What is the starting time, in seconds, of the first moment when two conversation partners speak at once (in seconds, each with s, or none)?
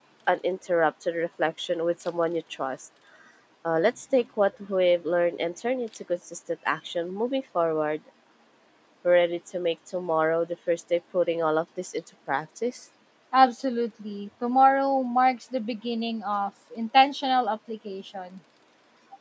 none